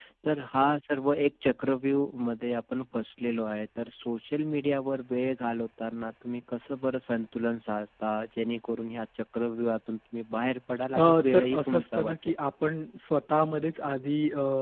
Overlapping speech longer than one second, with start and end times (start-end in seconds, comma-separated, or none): 11.0-12.4